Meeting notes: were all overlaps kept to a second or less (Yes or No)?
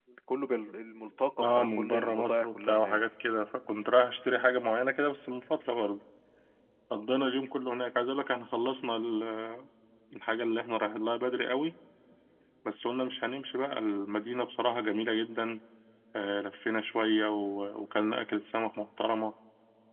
No